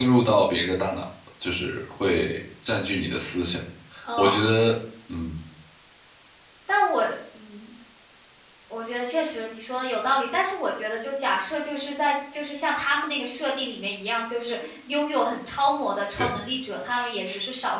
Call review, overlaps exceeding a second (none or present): none